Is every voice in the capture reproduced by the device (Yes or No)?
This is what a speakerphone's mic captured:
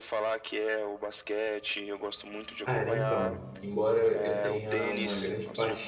No